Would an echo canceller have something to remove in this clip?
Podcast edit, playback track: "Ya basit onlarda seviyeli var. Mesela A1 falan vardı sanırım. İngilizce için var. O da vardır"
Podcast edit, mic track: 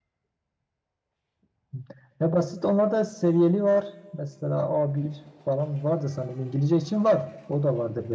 Yes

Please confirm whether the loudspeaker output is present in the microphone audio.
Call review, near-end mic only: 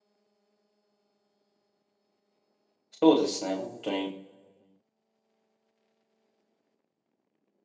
No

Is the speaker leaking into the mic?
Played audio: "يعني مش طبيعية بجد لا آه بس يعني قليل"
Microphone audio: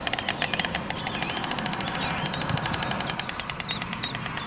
No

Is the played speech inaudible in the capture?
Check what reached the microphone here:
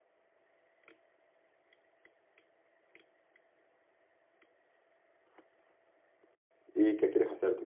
Yes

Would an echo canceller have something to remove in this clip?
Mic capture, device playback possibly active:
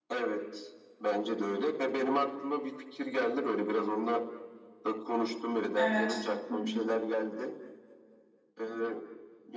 Yes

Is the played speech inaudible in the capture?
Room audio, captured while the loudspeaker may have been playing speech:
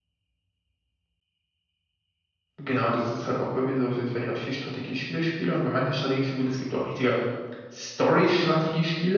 Yes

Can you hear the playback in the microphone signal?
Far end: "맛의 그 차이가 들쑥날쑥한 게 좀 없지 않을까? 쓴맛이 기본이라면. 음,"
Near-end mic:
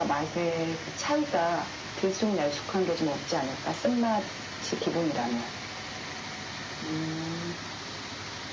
Yes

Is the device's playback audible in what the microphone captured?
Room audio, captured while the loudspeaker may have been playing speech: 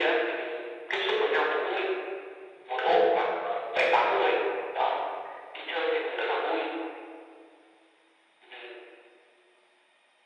Yes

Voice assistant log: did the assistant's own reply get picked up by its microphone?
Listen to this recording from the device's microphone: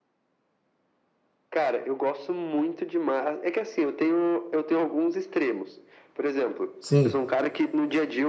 Yes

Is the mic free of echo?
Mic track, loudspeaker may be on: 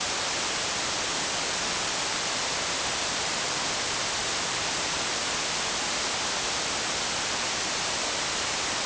Yes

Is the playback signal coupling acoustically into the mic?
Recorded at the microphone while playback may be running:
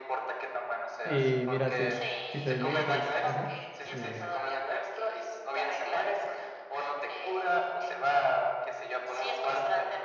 Yes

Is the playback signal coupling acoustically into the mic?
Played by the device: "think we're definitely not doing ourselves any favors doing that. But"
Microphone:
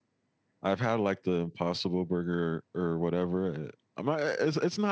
No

